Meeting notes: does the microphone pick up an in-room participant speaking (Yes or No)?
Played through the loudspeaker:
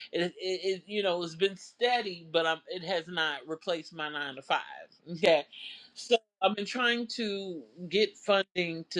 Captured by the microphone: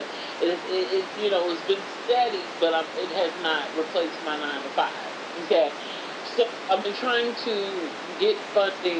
No